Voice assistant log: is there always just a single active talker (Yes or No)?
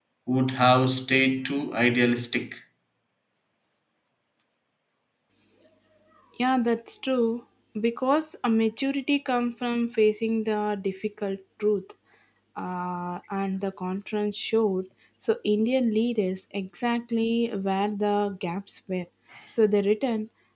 Yes